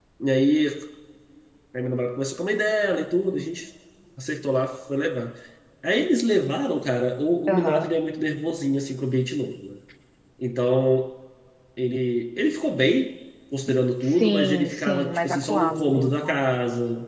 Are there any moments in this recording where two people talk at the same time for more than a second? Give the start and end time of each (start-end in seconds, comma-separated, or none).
14.0-16.4